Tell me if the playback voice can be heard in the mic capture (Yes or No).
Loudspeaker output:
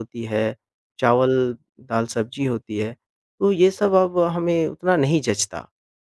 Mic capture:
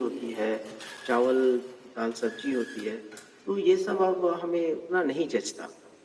Yes